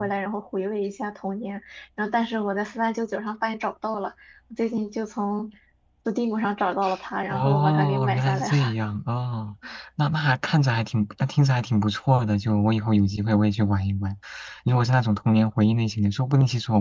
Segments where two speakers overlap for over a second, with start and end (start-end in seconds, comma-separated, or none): 7.3-8.7